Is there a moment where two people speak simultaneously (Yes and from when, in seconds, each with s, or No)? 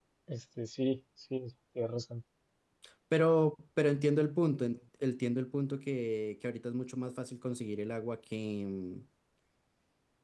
No